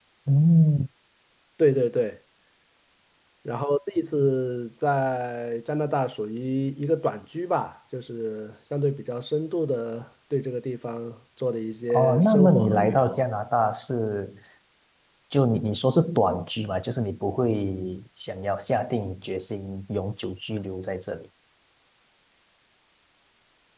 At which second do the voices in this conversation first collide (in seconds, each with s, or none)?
11.9 s